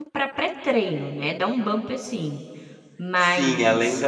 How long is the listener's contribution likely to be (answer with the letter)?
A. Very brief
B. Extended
B